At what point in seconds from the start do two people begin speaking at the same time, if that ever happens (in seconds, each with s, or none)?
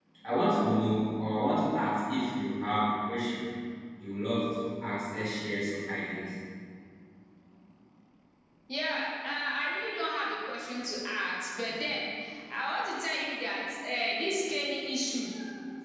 none